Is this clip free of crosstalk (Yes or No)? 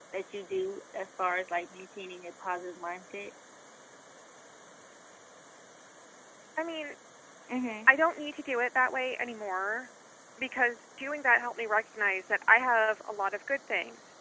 Yes